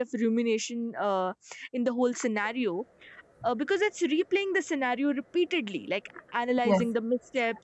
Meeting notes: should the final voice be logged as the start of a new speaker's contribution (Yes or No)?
No